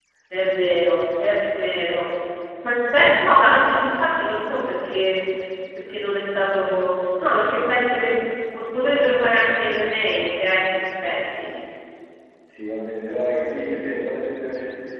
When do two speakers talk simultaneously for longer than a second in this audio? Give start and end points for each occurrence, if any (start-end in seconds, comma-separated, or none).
none